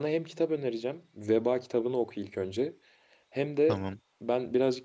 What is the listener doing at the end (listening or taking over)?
listening